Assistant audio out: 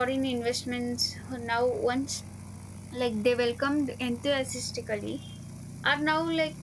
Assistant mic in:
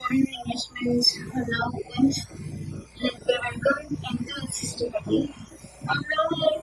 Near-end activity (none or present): none